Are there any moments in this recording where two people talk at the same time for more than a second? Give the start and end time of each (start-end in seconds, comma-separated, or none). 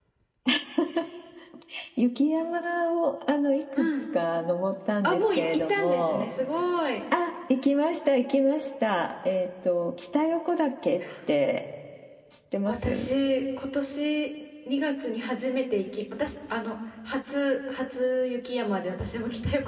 5.0-6.3